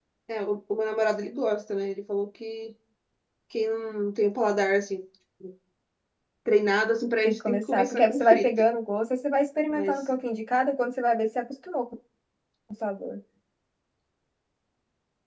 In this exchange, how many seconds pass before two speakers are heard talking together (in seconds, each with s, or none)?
7.2 s